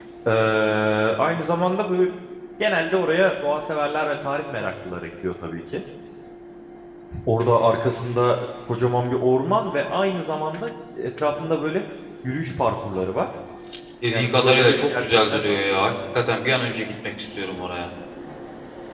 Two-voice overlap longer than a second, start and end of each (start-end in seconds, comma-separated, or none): 14.1-15.4